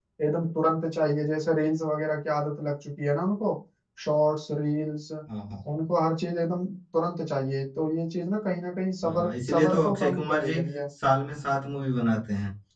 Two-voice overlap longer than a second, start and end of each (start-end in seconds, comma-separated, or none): 9.0-10.7